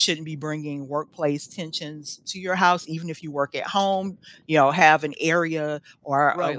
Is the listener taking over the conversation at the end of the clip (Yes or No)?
Yes